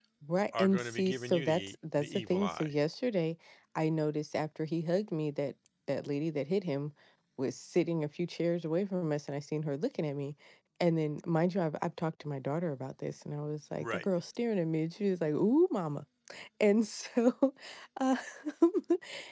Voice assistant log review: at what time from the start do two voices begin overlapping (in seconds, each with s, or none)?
0.6 s